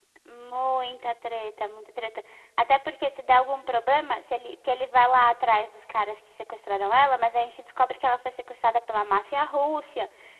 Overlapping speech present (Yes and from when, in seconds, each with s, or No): No